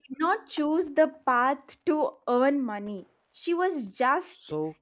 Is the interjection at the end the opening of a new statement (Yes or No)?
No